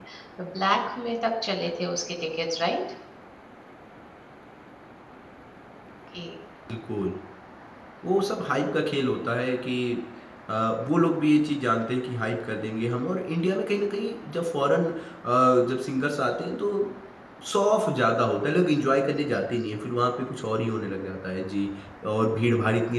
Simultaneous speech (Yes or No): No